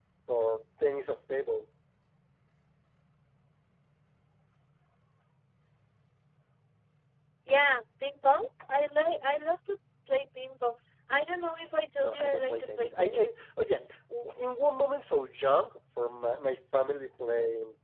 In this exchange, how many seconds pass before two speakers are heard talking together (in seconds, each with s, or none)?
12.0 s